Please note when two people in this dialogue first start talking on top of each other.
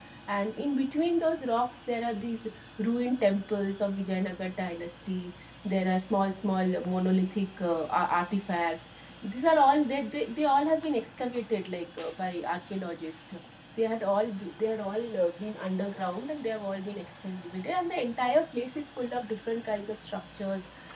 none

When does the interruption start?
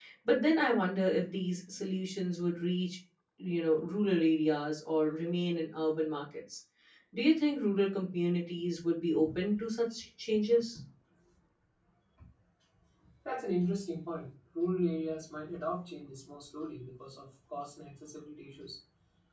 none

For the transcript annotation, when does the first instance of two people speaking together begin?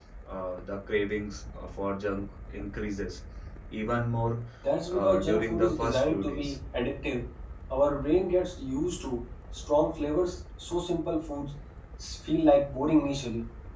5 s

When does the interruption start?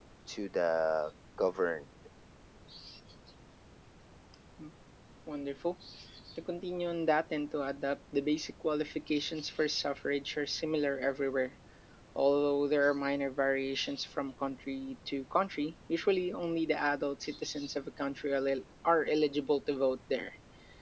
none

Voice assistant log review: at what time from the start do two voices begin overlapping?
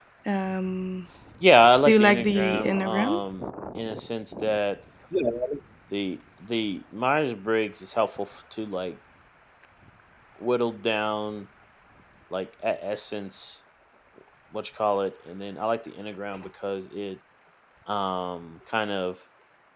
2 s

